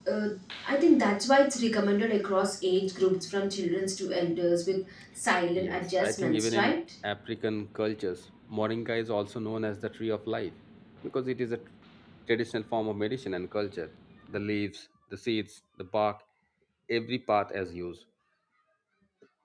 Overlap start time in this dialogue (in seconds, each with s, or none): 5.5 s